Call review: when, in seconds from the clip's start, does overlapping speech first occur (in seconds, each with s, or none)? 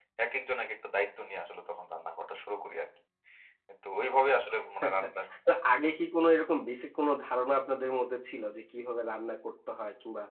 none